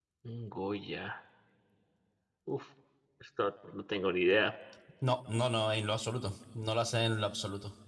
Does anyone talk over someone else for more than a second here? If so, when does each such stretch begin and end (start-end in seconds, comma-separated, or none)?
none